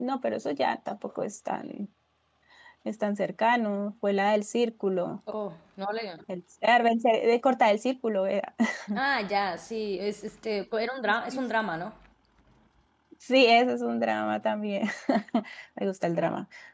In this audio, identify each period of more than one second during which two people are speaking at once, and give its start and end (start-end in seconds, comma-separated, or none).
none